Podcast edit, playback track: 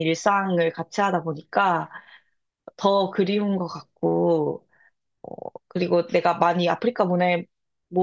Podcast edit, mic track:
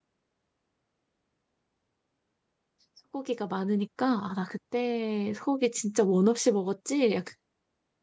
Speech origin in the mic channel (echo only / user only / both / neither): user only